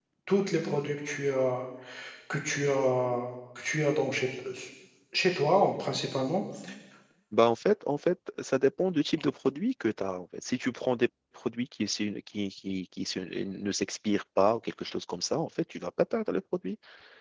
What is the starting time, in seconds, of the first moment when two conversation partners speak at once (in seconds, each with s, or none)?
none